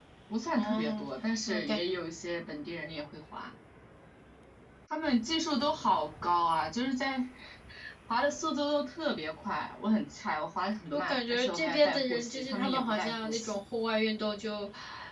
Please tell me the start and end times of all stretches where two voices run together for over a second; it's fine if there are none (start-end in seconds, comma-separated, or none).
10.9-13.6